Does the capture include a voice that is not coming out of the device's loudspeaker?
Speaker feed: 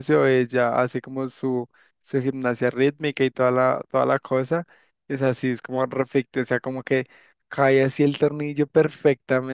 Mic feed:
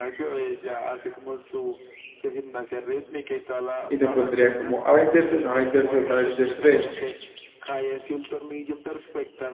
Yes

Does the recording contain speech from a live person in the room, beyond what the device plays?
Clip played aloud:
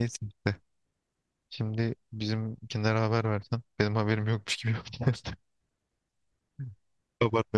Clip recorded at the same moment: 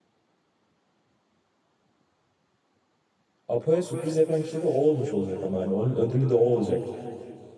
Yes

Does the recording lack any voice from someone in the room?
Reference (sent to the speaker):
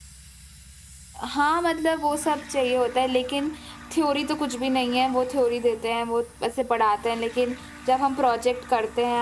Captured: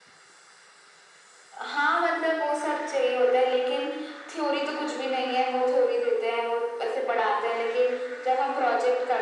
Yes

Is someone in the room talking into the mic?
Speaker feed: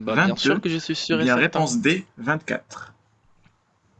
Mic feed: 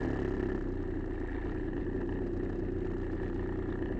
No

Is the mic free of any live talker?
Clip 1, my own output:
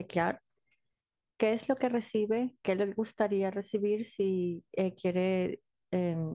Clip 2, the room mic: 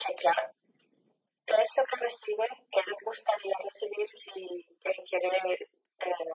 Yes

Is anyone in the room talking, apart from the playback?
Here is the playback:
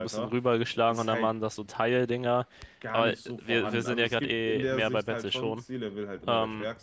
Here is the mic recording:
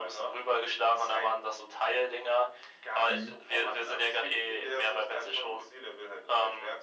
Yes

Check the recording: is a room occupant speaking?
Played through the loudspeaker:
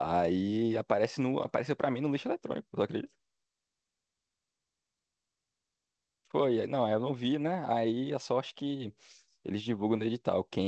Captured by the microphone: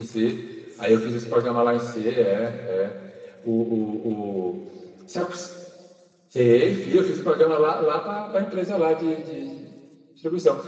Yes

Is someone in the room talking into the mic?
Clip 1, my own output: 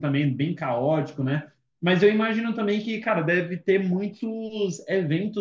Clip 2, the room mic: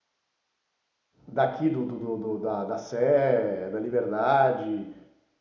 Yes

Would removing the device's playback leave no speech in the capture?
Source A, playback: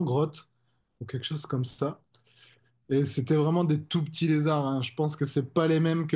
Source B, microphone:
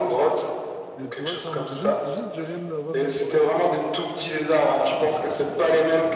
No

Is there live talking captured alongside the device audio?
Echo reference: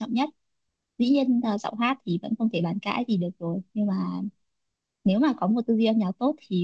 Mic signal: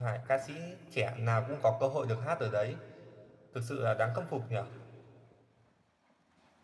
Yes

